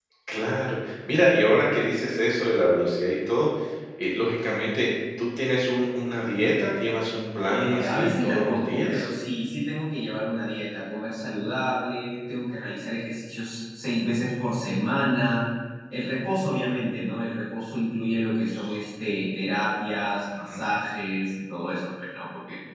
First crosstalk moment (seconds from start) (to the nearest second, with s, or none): 7 s